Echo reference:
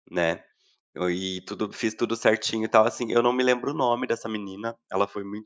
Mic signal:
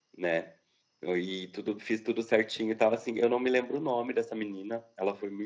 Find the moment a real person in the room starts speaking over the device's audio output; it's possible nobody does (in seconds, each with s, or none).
none